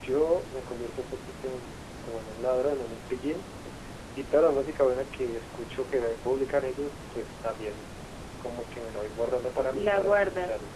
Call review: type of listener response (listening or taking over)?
listening